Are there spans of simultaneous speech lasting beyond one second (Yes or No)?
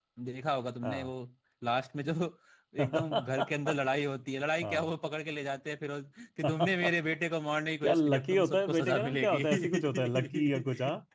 Yes